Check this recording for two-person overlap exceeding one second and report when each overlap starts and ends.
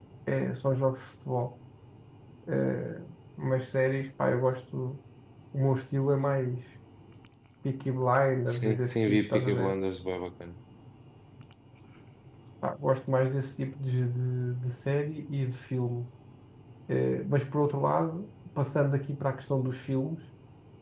8.5-9.8

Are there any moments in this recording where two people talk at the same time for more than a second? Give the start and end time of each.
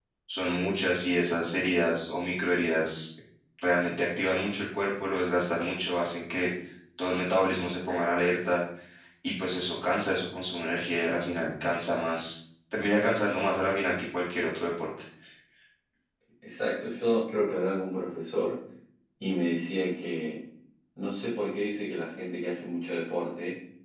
none

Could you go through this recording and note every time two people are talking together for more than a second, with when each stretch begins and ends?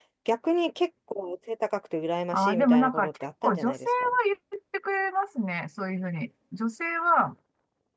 2.3-4.1

